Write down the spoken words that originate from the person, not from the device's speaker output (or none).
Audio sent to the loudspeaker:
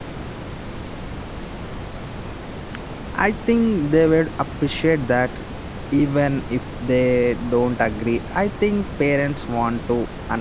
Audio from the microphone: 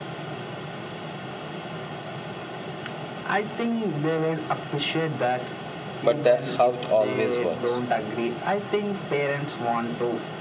but that's how it always works